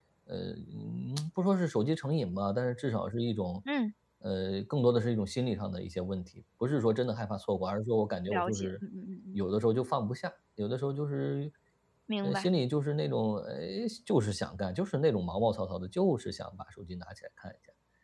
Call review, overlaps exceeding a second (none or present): none